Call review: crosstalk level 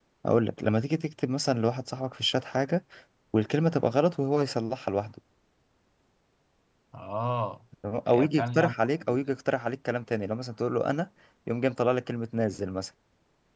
present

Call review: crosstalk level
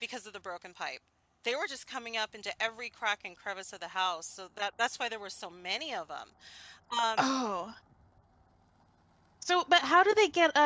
none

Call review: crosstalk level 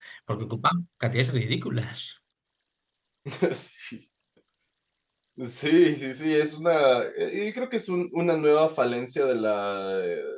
none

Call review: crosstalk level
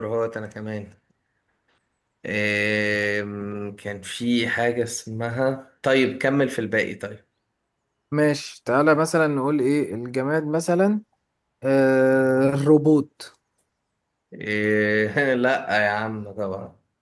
none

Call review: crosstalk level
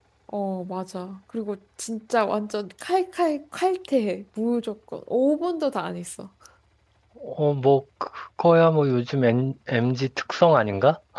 none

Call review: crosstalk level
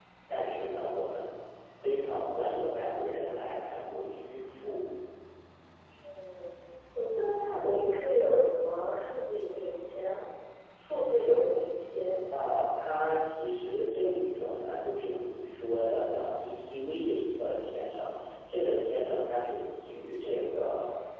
none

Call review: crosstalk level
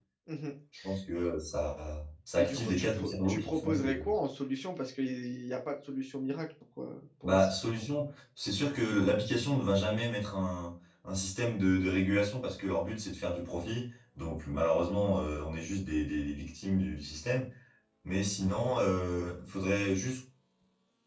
present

